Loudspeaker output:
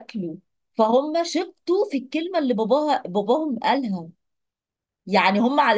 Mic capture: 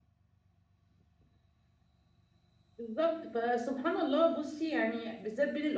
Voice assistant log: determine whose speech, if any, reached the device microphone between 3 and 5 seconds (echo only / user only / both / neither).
user only